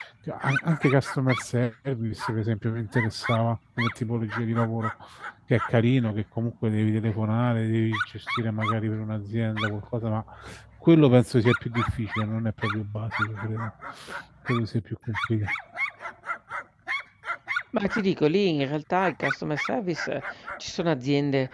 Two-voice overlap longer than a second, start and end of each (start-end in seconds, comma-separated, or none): none